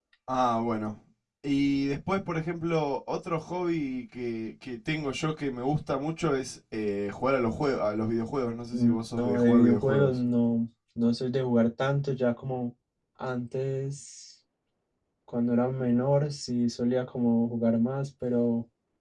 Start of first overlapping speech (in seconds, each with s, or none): 8.7 s